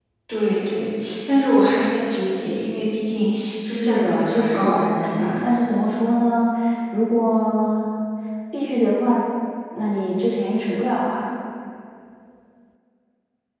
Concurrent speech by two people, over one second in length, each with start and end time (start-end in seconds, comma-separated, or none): 3.7-5.3